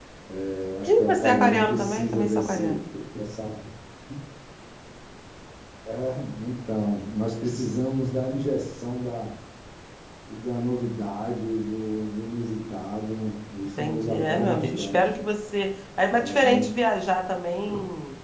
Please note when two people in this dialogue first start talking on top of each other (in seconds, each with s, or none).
0.9 s